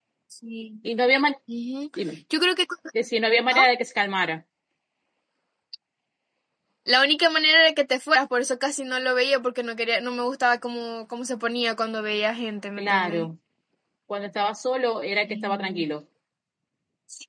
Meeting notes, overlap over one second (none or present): none